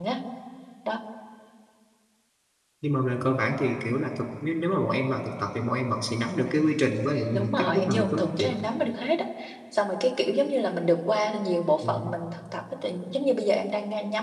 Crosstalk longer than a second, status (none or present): present